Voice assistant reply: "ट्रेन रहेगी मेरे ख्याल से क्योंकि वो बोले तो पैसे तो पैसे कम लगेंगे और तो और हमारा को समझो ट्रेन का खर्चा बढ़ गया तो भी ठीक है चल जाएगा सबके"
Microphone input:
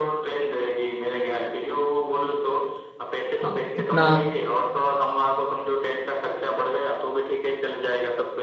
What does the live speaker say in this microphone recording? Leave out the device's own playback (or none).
हाँ इतना